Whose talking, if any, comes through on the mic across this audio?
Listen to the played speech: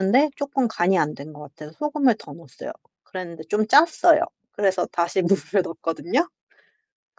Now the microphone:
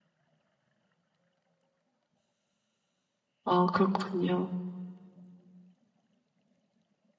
user only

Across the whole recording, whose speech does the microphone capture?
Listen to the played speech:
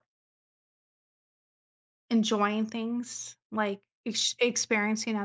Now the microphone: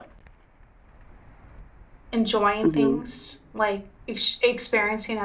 both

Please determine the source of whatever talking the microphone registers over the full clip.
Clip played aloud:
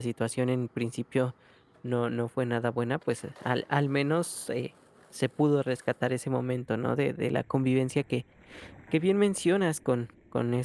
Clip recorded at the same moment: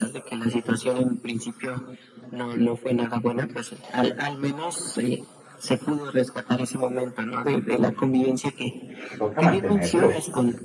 both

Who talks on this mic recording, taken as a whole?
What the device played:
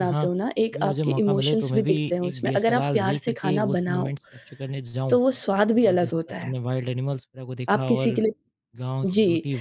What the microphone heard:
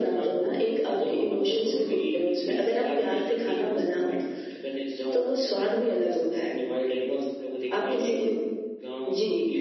echo only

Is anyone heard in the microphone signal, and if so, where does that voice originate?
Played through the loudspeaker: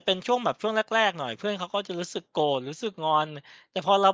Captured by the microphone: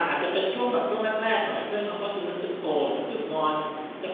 echo only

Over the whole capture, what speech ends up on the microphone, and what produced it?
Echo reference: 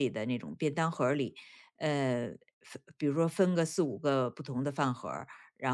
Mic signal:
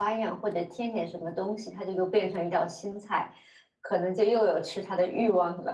user only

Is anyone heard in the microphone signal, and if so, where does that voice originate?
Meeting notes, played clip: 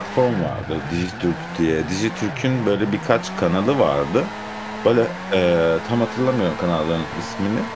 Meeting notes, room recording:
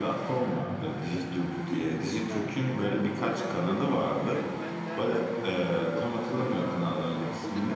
both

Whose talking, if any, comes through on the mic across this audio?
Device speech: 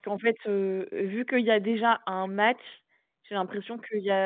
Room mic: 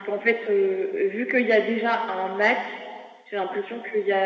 echo only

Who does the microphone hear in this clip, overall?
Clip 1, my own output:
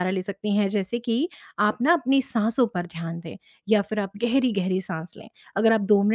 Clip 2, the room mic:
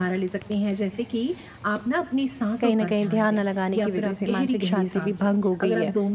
both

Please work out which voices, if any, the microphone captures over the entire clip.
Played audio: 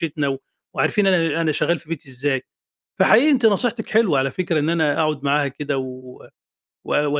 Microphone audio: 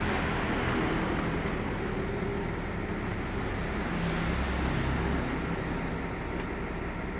neither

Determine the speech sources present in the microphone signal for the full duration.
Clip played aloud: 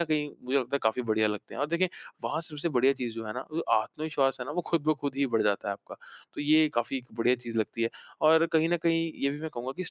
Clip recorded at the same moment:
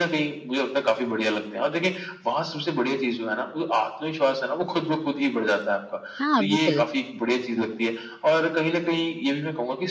both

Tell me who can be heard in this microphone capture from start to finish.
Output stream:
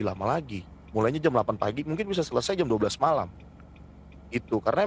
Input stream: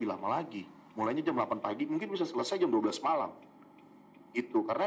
echo only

